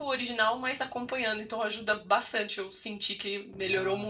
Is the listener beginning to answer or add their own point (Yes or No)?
Yes